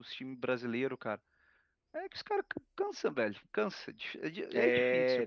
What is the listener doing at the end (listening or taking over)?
taking over